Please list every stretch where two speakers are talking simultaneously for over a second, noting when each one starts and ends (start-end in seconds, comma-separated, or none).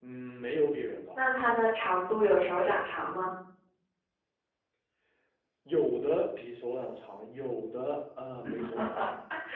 none